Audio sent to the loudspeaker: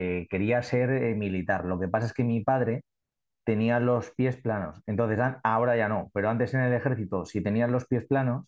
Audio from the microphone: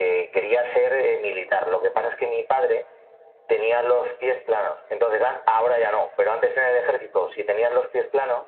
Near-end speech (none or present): none